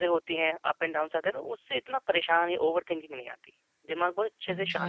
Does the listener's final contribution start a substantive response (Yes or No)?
Yes